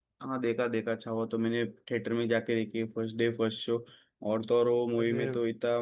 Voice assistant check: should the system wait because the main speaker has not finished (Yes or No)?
Yes